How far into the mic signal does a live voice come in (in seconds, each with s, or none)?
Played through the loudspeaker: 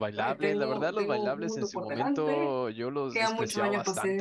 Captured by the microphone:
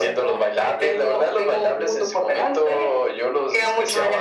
none